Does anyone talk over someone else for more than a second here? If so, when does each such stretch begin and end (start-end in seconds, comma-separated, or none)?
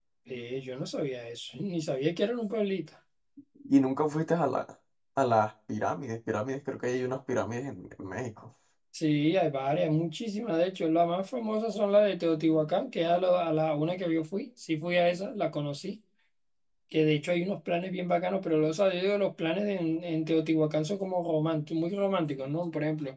none